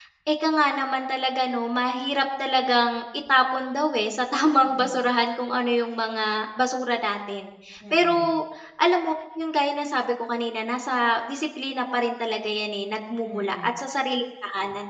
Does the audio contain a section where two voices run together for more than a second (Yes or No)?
No